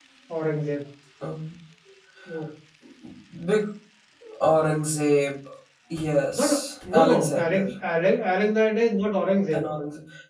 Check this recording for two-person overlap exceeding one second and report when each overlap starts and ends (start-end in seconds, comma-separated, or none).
6.3-7.7